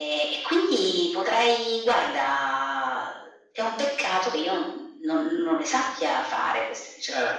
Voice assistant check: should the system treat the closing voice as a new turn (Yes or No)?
Yes